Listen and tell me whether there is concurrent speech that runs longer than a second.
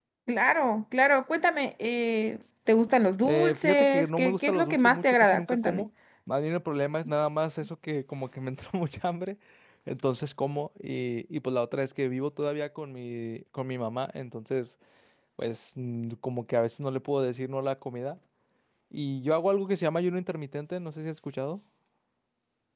Yes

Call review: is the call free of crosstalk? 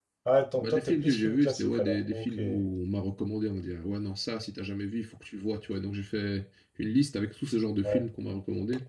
No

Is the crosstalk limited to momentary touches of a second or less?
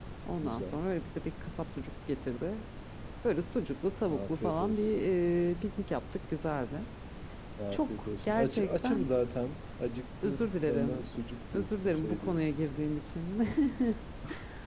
No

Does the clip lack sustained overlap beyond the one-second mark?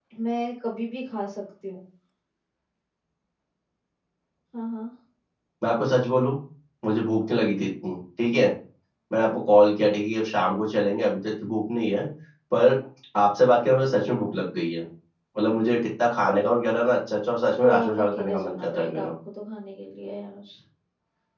No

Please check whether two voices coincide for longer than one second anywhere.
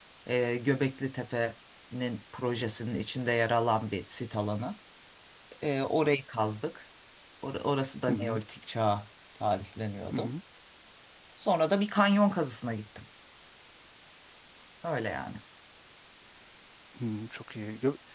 No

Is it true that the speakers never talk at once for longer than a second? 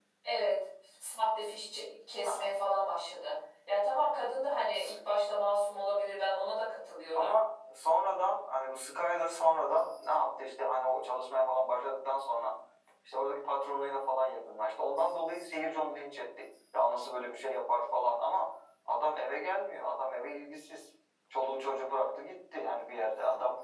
Yes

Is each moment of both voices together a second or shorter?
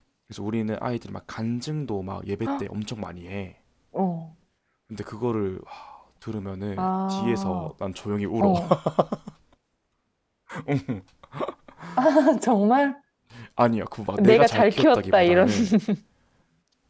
No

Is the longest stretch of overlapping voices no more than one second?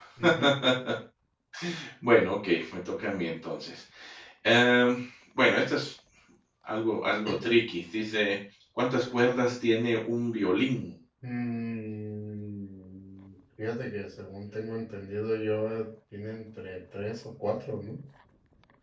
Yes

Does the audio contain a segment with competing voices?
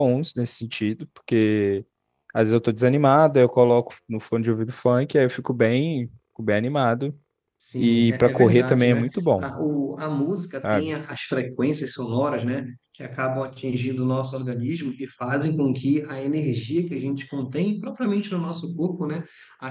Yes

